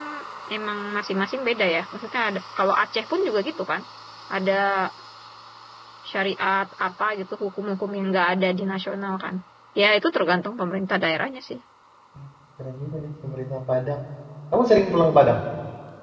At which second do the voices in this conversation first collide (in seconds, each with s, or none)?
none